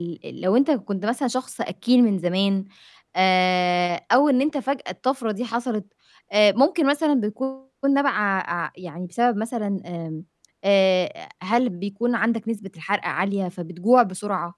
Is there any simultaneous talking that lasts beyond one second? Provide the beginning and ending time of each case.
none

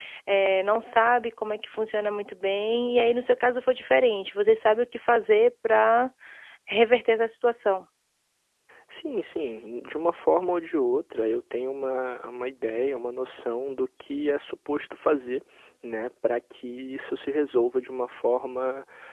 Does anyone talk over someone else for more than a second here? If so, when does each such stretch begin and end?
none

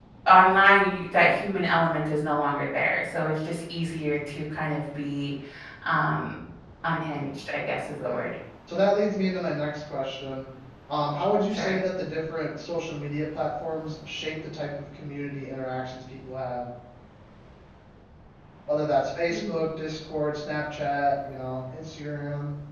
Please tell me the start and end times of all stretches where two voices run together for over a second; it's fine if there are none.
none

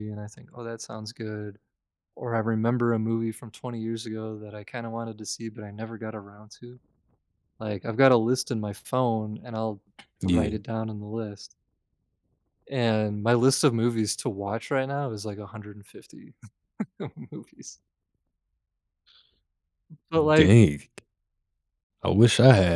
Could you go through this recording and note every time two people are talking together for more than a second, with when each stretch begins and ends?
none

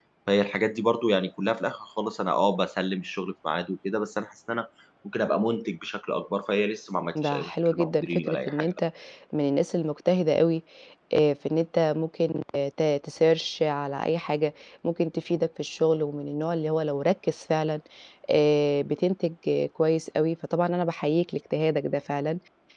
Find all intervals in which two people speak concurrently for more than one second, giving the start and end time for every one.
7.2-8.8

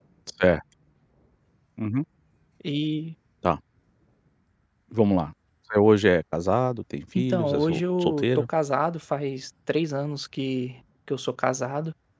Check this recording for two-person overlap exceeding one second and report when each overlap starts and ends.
7.2-8.5

